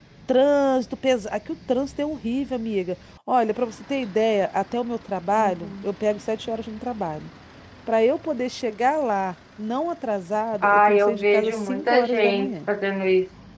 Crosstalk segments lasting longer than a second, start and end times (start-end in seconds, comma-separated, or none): 10.6-12.5